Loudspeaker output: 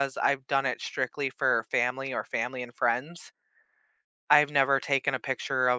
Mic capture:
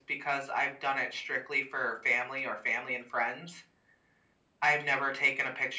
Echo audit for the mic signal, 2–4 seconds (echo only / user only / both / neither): echo only